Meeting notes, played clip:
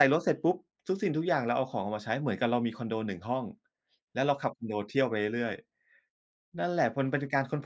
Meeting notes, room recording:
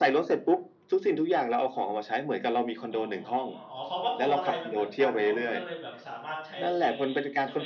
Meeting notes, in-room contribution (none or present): present